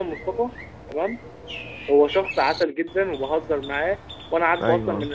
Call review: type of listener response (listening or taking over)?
listening